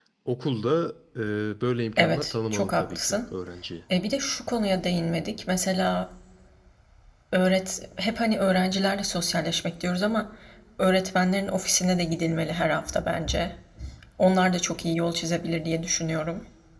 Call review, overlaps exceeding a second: present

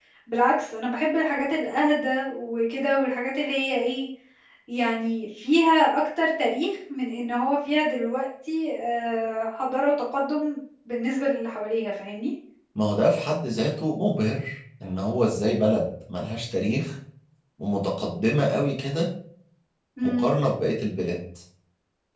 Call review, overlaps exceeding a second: none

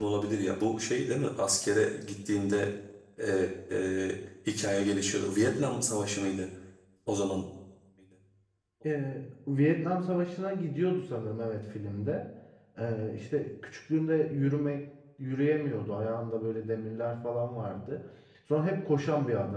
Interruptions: none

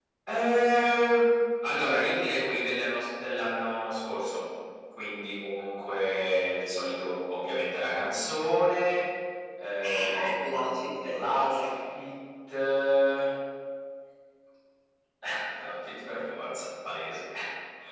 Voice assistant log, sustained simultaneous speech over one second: present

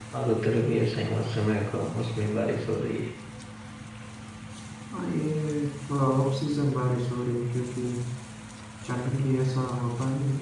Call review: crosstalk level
none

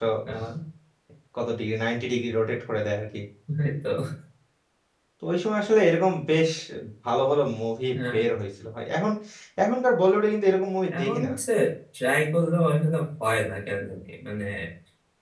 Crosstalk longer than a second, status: none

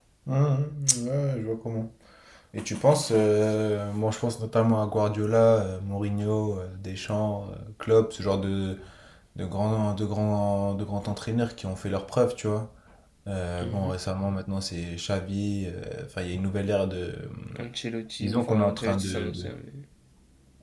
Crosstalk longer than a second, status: present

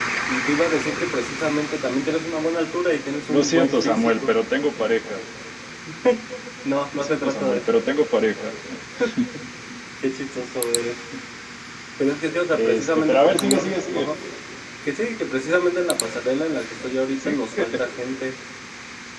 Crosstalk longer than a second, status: present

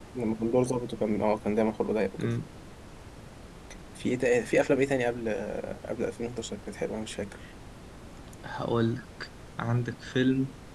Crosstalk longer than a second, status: none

